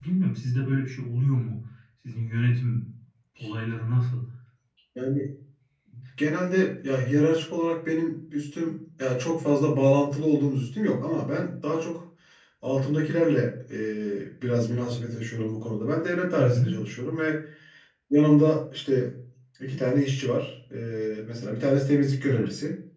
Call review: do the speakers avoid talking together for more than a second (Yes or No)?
Yes